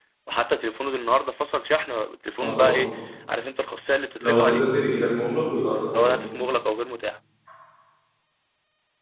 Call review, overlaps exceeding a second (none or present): none